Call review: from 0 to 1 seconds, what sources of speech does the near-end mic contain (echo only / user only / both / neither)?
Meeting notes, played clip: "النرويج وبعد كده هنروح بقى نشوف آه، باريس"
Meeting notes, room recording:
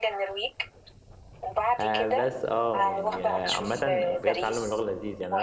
echo only